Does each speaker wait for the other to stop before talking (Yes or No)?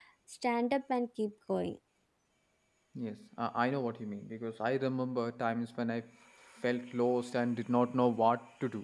Yes